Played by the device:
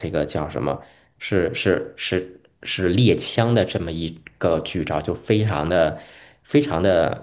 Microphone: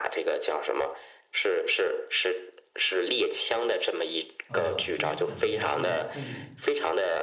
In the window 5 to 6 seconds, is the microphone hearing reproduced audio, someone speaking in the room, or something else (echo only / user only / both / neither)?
both